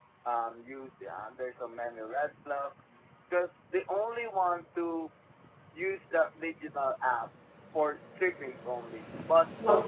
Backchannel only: Yes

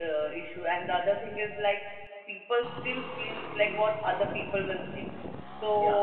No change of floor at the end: Yes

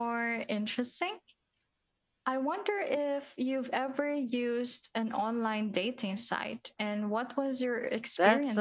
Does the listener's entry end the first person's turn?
Yes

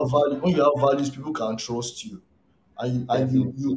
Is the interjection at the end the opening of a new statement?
No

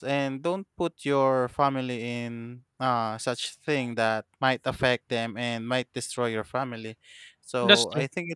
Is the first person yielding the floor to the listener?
No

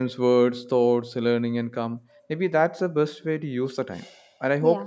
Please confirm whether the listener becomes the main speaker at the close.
No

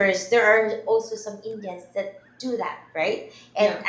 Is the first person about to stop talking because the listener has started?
No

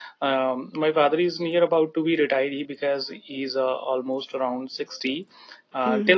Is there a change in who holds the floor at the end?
No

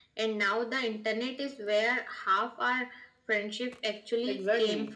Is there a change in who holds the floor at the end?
Yes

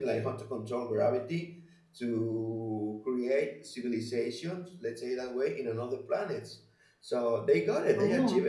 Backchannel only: Yes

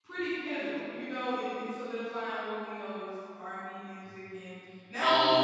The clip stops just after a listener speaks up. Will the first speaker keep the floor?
Yes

